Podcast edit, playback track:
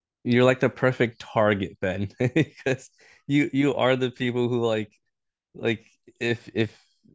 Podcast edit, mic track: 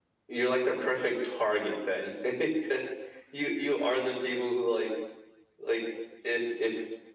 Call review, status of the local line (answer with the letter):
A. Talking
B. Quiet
B